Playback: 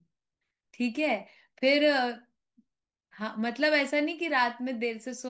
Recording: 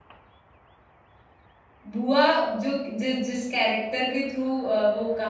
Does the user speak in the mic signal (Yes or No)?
Yes